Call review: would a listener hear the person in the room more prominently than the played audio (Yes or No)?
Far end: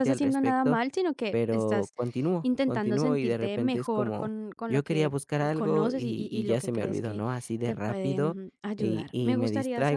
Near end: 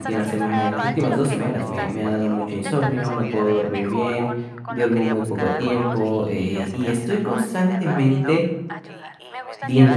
Yes